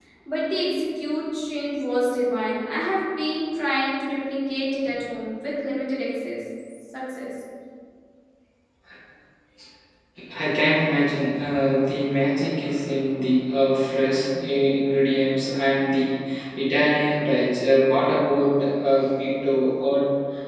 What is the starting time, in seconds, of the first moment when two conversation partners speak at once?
none

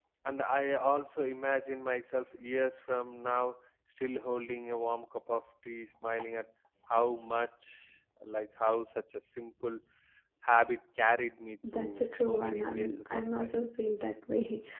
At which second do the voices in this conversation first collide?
11.6 s

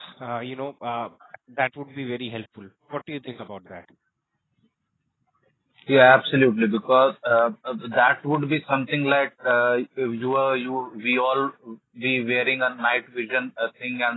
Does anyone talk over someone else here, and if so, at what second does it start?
none

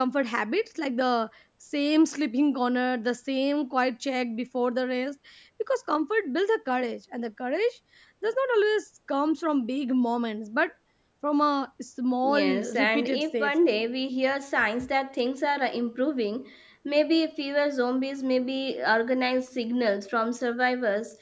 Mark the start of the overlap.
12.2 s

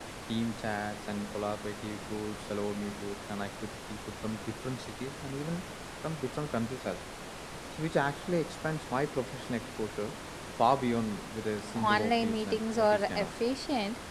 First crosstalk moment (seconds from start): 11.8 s

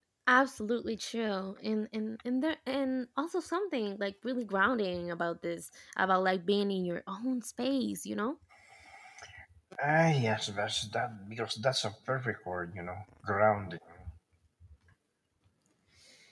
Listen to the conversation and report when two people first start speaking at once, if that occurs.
none

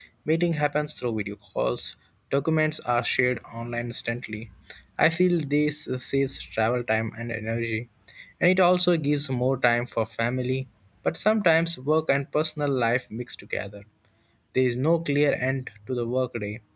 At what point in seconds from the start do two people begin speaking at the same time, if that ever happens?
none

